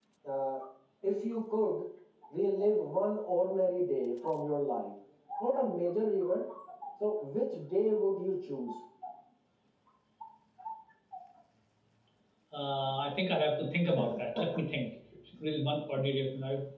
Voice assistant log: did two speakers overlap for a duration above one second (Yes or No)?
No